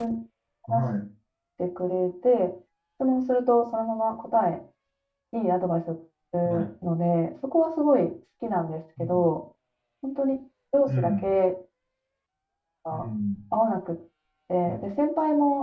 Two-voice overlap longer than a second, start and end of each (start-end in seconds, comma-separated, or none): none